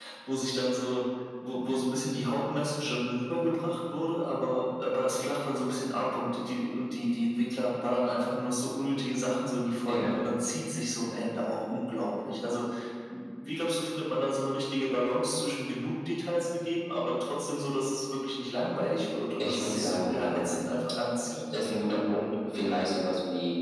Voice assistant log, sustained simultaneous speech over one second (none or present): present